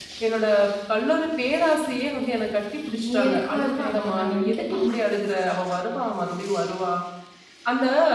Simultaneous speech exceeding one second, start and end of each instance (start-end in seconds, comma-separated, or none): 3.0-5.0